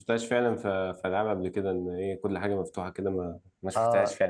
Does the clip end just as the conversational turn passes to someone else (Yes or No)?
Yes